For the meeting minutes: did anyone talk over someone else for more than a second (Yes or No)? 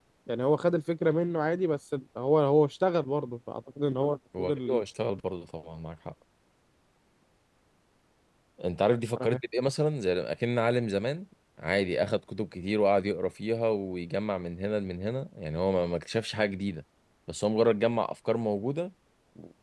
No